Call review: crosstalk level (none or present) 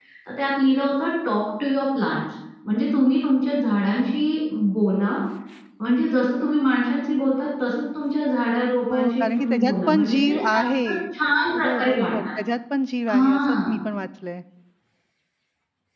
present